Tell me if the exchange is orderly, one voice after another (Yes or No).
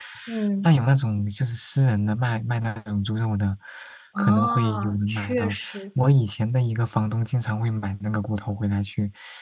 No